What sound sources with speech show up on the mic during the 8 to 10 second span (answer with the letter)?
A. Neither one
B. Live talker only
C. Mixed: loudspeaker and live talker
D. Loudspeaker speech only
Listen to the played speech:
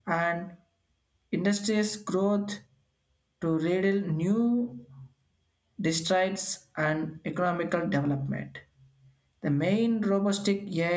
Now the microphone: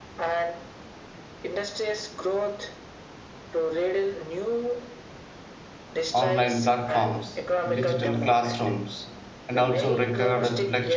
C